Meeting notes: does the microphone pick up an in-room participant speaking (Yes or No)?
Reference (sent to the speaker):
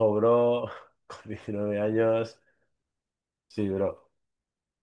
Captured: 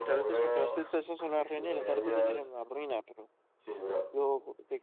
Yes